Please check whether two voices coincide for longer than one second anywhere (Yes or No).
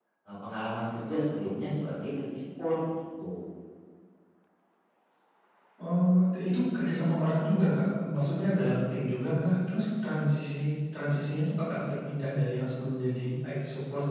No